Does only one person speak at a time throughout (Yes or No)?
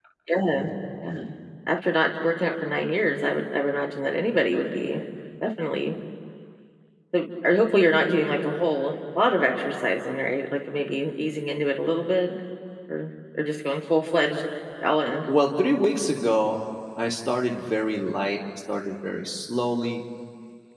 Yes